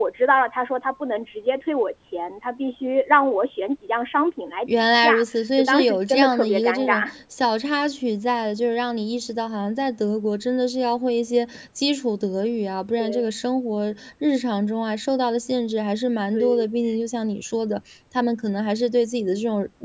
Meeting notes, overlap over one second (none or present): present